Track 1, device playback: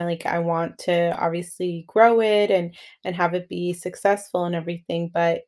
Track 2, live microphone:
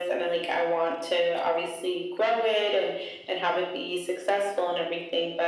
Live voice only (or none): none